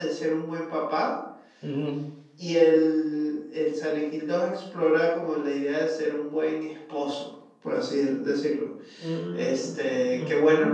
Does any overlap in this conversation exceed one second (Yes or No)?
Yes